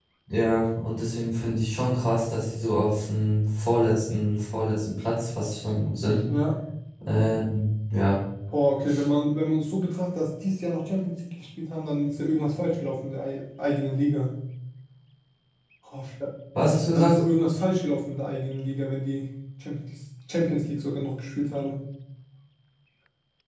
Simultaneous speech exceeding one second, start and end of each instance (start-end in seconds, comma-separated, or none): none